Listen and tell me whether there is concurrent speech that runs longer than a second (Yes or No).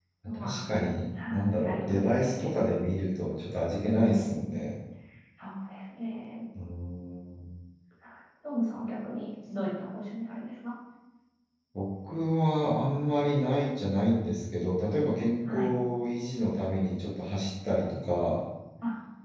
Yes